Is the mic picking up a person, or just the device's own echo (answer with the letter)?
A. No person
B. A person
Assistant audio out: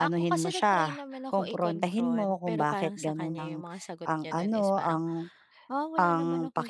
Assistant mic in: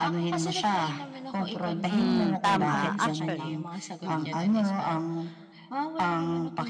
B